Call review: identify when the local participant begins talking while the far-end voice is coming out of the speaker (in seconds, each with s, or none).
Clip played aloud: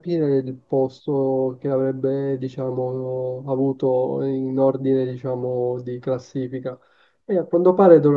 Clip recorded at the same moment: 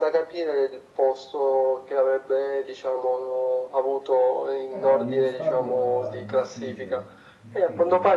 4.7 s